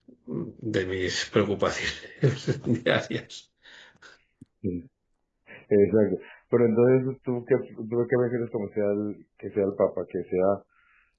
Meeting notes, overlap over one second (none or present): none